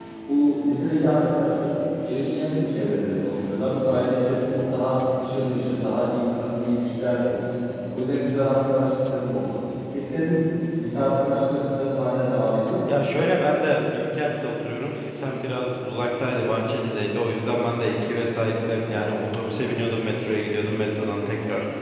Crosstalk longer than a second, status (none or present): none